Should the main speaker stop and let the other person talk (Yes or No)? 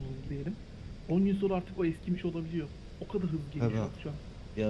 Yes